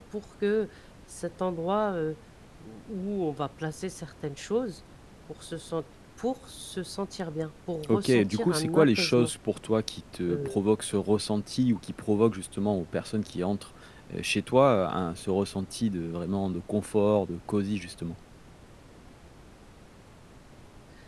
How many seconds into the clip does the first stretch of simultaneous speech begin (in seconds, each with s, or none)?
7.9 s